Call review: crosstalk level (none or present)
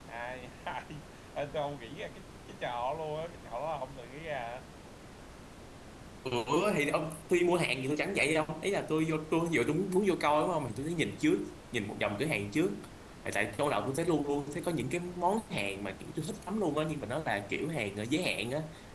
none